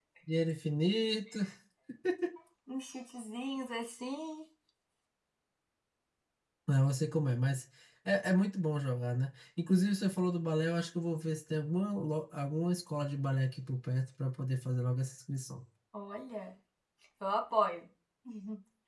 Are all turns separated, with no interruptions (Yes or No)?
Yes